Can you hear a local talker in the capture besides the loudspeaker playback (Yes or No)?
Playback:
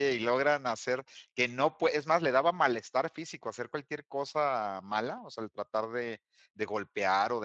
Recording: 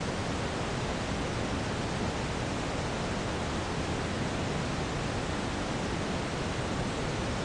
No